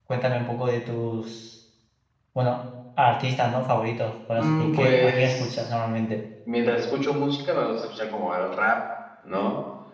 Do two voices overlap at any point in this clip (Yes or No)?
Yes